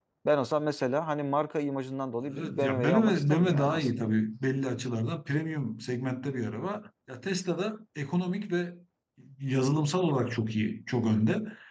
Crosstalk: present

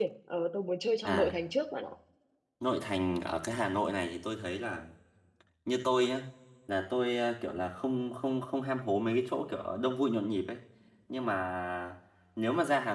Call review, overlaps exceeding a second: none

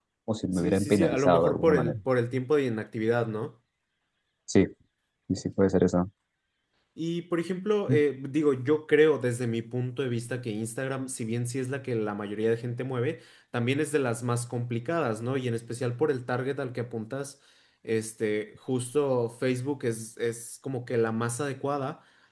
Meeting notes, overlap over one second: present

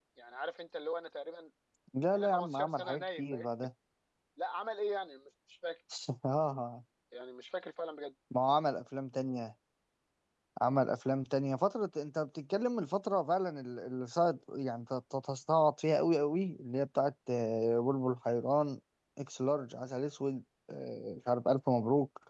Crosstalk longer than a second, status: present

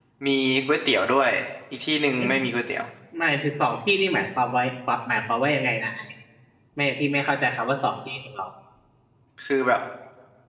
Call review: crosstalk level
none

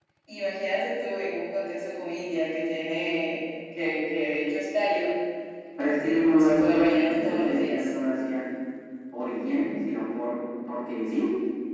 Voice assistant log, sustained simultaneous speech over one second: present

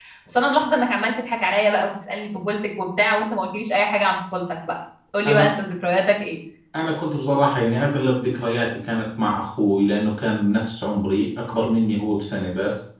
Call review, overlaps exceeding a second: none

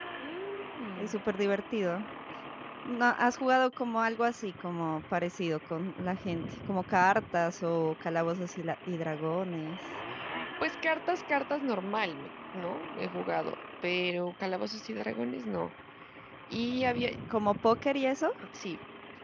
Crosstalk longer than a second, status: none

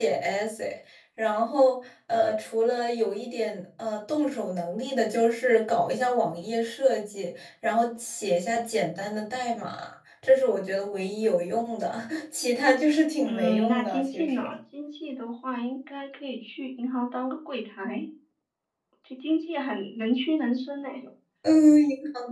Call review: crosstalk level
present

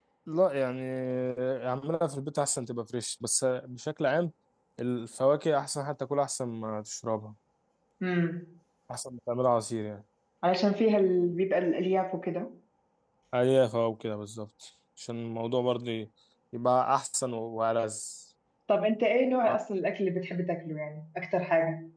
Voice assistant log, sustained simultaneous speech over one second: none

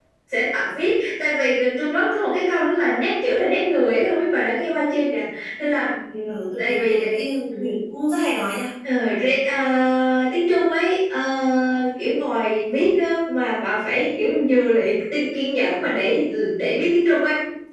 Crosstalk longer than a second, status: none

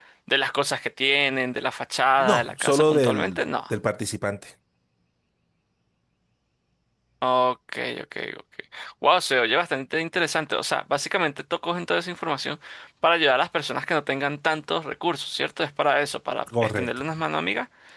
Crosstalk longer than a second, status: present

